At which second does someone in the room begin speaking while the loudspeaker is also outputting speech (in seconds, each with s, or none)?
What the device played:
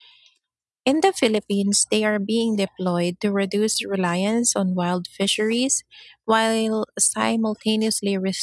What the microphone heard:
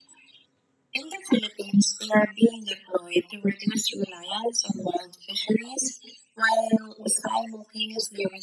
none